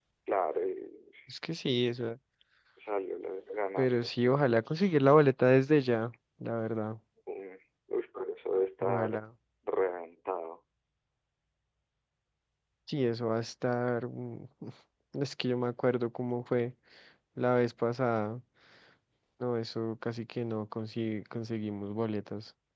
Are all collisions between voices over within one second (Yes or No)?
Yes